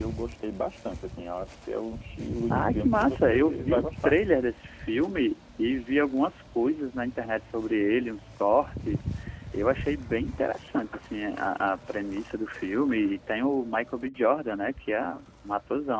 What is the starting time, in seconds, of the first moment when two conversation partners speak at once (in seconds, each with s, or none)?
2.5 s